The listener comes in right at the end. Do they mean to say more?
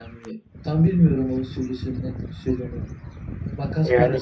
No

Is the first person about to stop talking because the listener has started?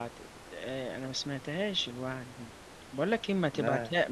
No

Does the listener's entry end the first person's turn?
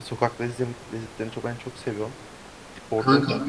No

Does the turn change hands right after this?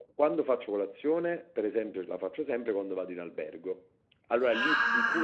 Yes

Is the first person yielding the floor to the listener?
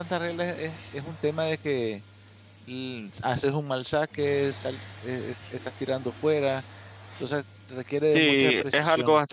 Yes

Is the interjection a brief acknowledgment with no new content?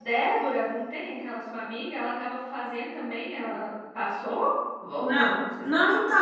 No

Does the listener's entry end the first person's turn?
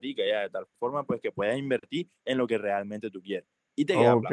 Yes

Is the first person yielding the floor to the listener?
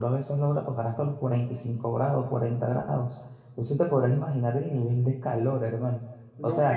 Yes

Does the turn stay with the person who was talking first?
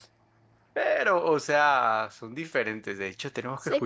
Yes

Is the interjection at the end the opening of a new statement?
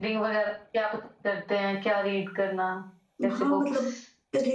Yes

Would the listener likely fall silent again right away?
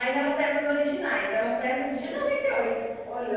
Yes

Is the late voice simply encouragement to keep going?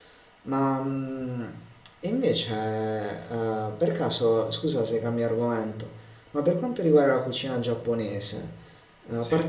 Yes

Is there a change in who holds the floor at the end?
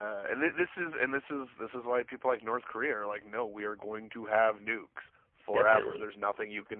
No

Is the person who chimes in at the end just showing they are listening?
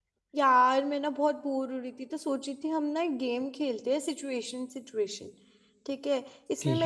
Yes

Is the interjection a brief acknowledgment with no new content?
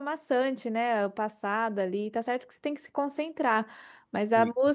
Yes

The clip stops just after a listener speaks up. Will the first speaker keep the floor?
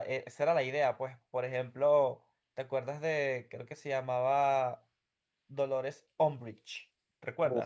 No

